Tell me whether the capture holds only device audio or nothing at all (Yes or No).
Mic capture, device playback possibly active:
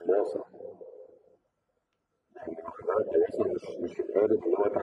Yes